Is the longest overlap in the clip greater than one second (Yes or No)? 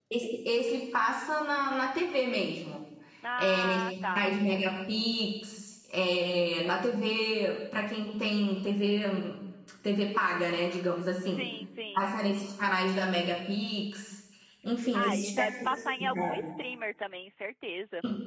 Yes